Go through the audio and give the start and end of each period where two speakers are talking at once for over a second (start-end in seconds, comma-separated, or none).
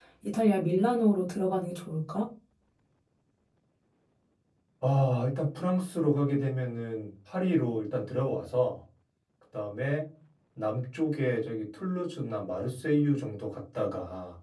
none